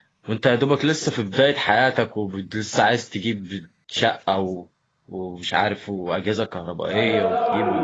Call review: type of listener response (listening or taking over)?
taking over